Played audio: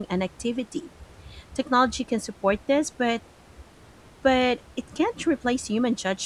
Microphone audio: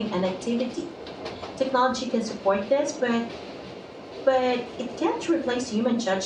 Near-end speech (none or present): none